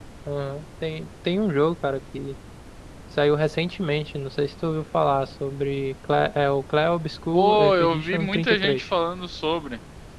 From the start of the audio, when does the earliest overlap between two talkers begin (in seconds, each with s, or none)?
7.3 s